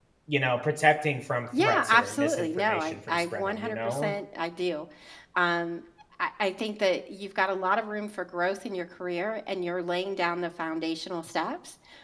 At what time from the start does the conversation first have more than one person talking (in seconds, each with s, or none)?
1.5 s